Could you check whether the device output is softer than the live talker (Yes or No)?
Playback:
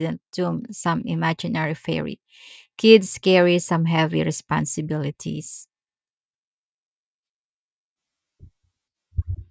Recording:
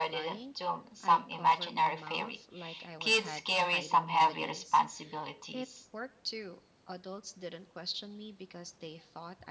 No